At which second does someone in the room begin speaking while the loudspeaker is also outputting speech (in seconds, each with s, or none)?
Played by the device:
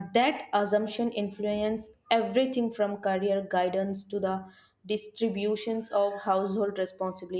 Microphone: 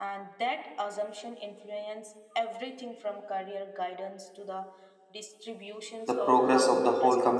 6.1 s